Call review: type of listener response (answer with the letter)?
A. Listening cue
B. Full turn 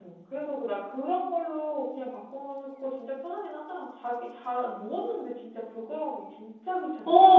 B